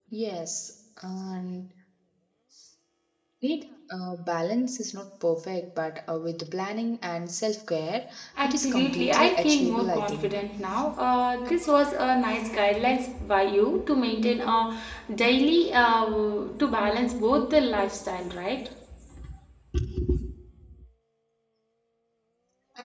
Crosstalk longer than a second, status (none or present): present